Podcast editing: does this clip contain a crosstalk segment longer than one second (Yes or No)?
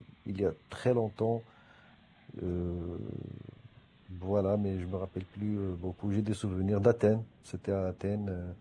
No